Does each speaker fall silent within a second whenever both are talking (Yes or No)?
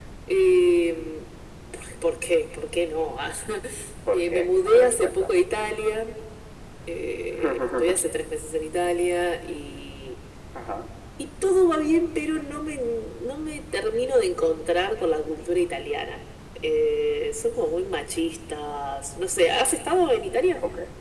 No